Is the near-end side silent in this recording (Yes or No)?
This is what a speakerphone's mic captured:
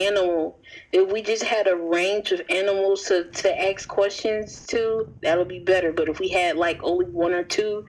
Yes